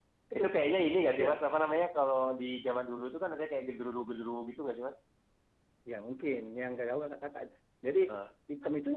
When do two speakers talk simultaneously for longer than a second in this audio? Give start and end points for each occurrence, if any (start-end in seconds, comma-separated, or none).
none